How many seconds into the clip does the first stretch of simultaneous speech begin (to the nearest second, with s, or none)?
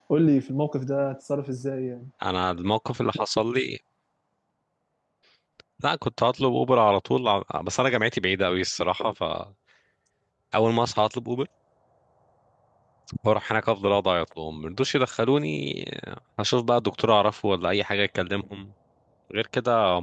none